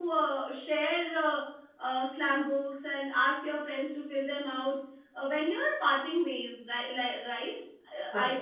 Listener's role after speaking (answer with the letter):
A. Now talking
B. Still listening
B